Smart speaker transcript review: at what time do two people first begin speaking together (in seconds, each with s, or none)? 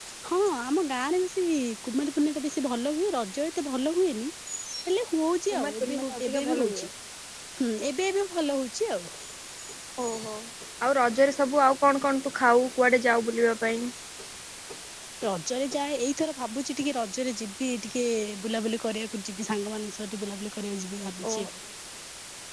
5.5 s